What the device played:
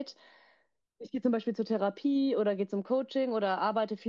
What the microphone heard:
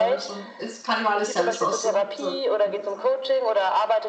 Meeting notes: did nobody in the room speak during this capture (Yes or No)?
No